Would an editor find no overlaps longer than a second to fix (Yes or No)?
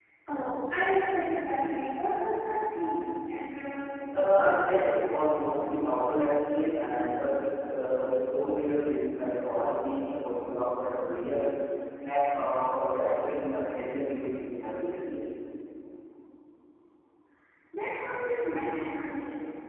Yes